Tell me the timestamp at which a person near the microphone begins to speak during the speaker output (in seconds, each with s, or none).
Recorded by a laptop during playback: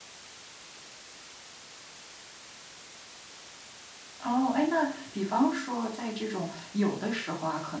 4.2 s